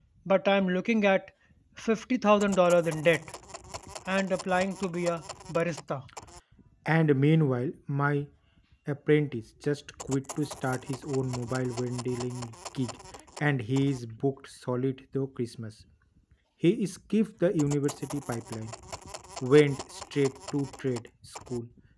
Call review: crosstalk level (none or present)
none